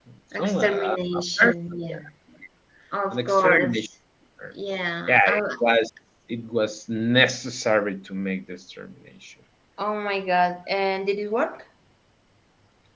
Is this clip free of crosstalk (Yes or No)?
No